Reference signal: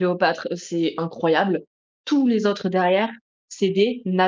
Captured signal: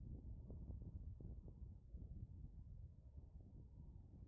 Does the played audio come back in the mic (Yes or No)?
No